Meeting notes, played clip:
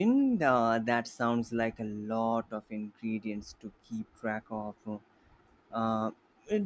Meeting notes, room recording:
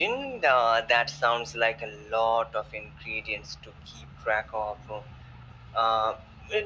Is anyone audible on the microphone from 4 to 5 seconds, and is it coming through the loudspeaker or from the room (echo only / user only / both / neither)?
echo only